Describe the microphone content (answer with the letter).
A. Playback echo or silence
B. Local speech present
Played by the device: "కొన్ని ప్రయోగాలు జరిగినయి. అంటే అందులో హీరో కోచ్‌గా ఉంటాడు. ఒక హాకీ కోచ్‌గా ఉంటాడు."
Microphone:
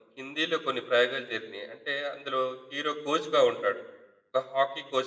A